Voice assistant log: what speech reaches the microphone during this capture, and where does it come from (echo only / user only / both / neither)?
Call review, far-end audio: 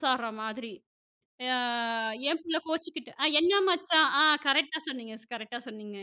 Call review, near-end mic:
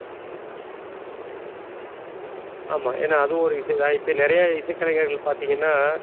user only